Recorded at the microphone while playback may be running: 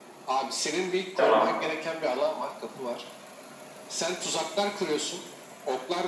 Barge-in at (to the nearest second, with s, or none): 1 s